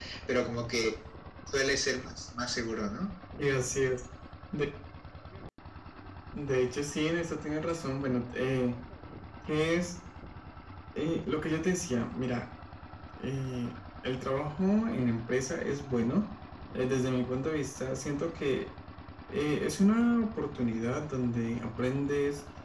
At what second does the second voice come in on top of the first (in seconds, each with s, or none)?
none